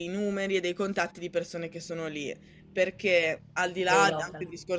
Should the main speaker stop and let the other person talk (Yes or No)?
No